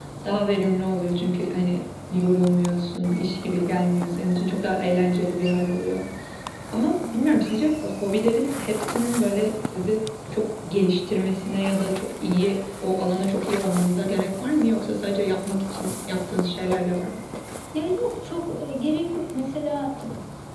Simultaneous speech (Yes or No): No